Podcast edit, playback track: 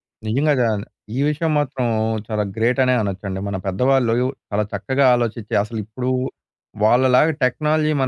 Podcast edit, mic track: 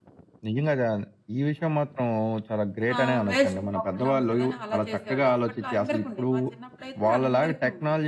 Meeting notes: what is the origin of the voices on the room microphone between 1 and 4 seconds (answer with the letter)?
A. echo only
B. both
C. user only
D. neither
B